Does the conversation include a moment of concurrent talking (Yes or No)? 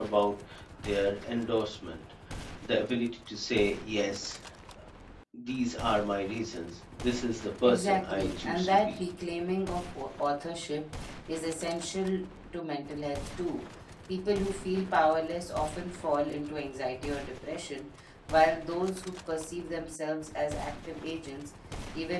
Yes